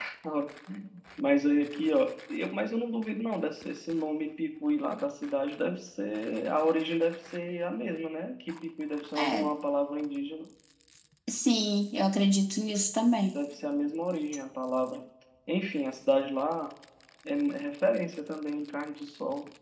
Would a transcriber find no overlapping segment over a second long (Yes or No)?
Yes